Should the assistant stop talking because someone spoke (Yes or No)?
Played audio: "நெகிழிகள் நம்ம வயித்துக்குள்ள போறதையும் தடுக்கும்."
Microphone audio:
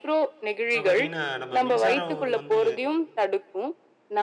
Yes